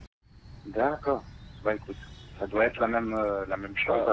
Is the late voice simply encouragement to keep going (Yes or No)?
No